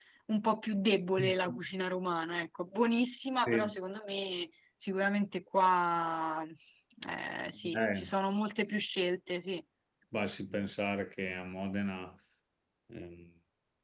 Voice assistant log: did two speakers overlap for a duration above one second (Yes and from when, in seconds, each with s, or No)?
No